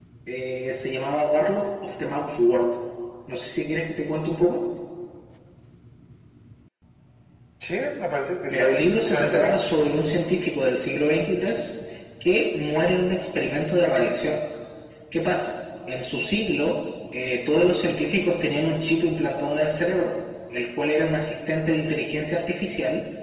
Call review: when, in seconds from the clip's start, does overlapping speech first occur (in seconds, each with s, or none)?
8.5 s